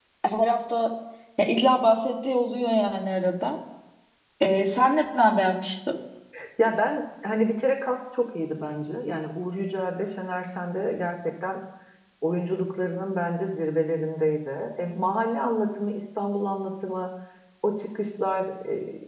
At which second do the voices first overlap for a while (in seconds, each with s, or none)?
none